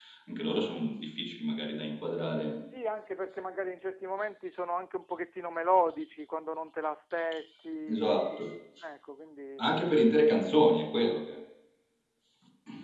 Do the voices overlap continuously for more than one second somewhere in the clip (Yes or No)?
No